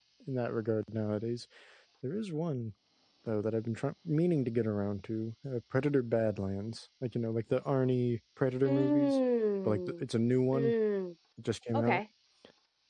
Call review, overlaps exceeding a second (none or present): none